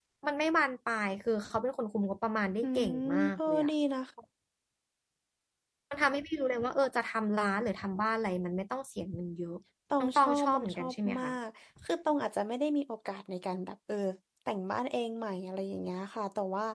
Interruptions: present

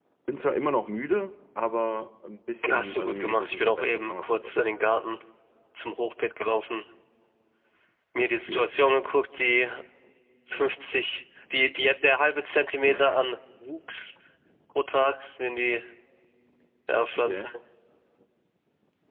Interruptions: present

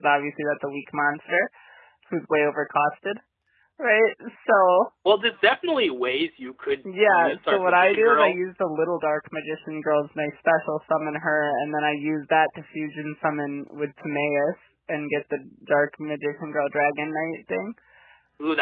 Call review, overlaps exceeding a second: present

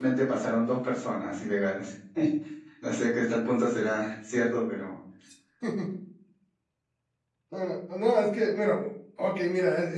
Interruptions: none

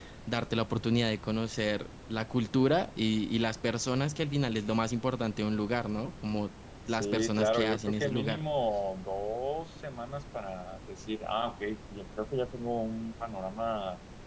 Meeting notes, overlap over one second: present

